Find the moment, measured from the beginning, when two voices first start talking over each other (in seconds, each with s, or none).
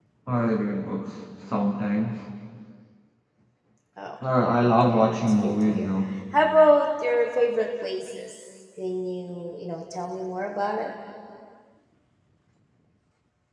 4.6 s